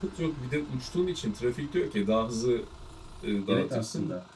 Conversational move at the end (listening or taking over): taking over